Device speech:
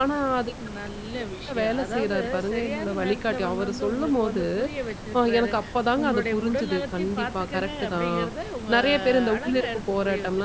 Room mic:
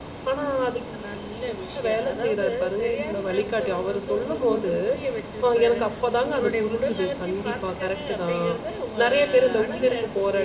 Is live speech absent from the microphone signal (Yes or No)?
Yes